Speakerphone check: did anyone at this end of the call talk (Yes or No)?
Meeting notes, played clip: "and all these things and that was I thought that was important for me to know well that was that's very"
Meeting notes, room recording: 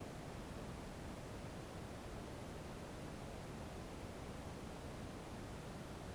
No